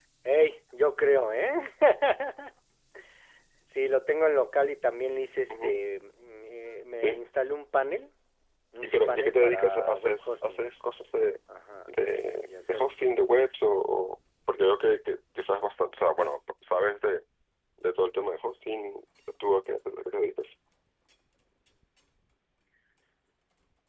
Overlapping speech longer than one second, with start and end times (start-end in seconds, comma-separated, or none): 8.8-10.6